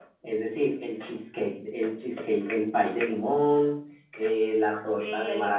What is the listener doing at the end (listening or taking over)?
listening